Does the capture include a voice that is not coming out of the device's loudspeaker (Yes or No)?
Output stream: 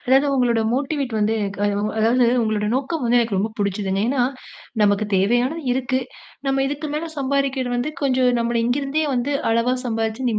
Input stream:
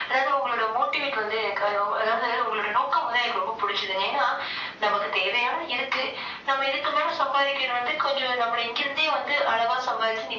No